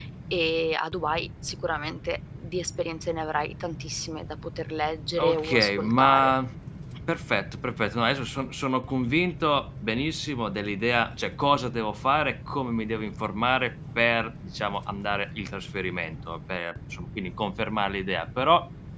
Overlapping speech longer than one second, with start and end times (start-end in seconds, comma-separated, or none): 5.1-6.3